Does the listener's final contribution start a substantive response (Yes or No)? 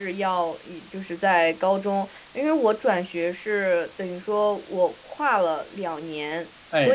No